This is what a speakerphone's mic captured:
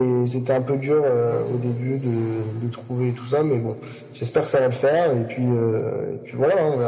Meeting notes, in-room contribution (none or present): present